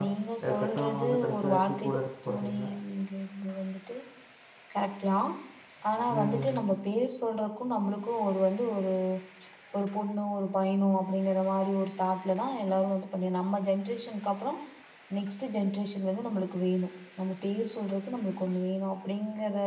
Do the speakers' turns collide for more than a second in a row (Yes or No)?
Yes